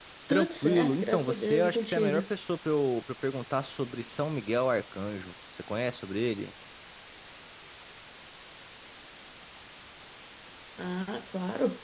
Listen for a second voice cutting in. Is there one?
Yes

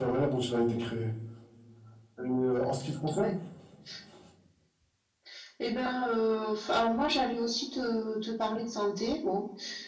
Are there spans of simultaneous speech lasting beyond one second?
No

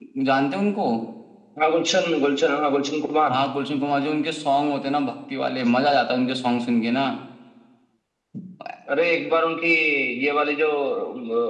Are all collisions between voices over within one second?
Yes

